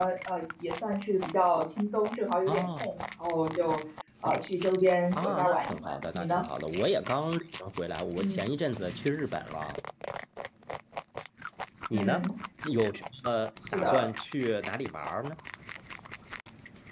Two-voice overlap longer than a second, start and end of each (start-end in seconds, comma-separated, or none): 5.2-6.4